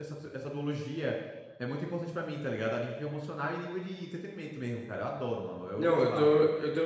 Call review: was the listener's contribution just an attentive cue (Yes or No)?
No